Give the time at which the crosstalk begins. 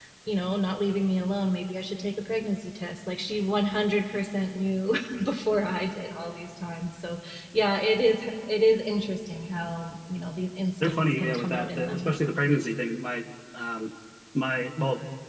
11 s

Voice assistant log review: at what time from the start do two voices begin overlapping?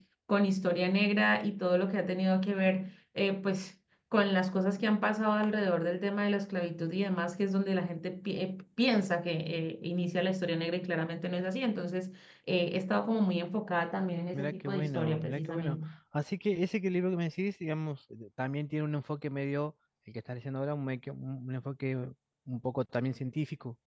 14 s

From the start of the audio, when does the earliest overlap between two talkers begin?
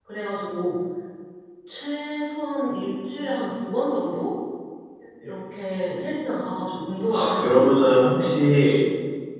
7 s

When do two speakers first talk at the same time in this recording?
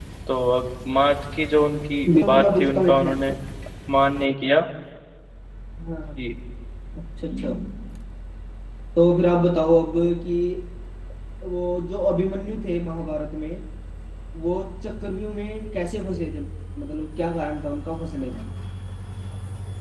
2 s

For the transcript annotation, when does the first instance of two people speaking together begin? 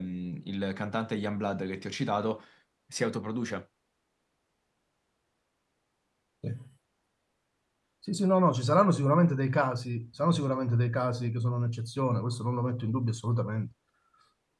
none

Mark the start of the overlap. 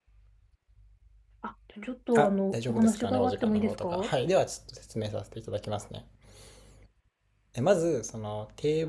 2 s

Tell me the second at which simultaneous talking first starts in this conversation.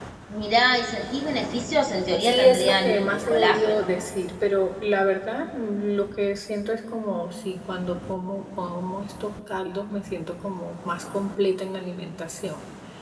2 s

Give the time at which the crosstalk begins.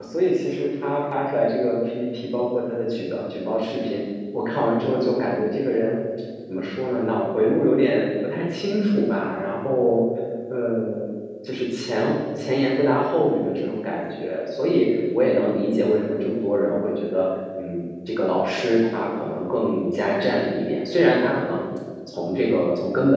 none

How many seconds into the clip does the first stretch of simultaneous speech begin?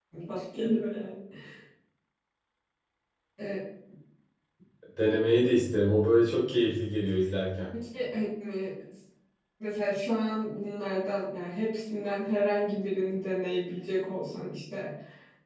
none

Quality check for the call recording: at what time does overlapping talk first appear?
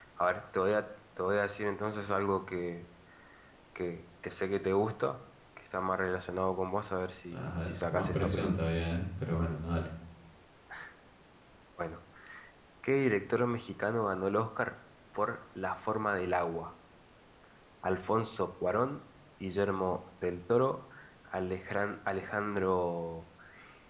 7 s

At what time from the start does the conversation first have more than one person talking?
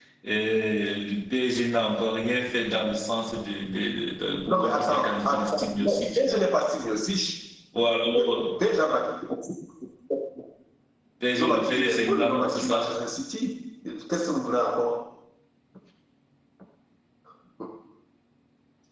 4 s

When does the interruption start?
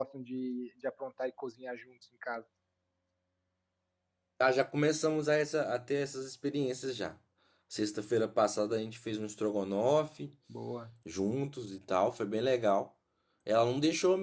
none

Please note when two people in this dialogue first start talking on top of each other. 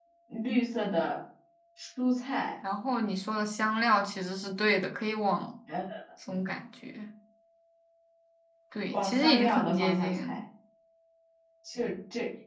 9 s

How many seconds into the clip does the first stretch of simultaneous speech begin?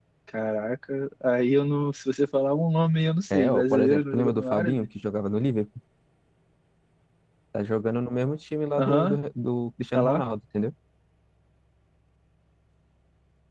3 s

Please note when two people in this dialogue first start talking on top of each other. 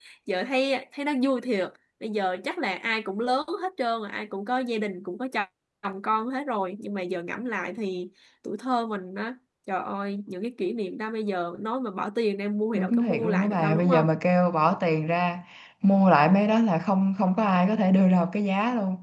13 s

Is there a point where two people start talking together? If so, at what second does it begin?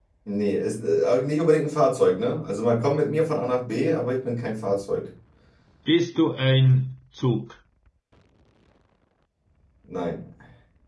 none

